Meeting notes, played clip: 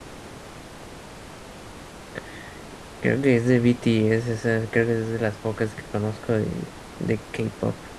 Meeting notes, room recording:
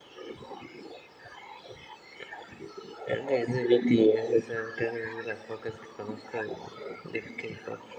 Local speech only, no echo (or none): none